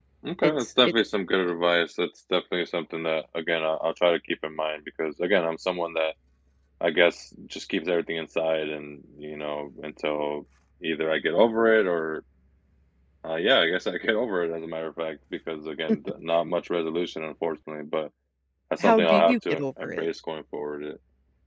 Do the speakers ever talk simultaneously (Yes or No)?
Yes